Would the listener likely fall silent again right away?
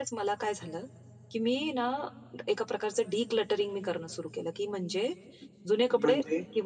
Yes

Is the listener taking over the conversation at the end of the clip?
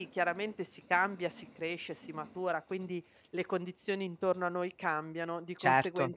No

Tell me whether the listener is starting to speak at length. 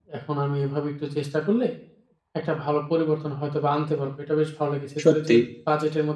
No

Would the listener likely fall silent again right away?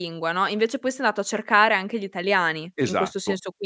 No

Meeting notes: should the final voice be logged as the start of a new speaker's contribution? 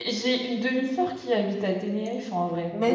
No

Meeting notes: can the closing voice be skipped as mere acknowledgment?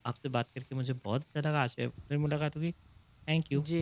No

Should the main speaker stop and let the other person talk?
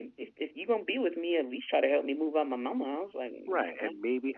Yes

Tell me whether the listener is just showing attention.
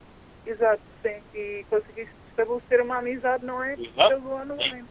No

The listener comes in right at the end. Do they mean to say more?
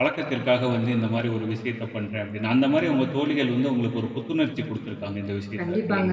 Yes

